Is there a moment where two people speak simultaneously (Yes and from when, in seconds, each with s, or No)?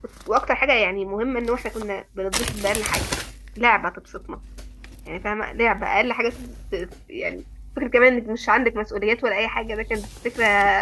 No